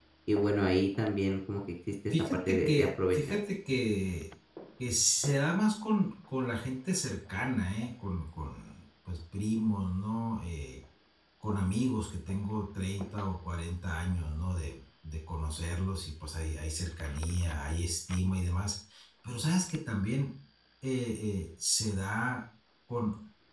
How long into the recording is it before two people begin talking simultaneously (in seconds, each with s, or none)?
2.1 s